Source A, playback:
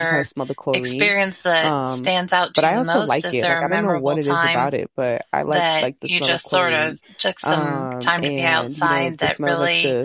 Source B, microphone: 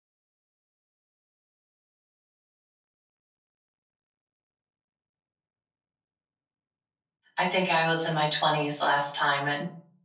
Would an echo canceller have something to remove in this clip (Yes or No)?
No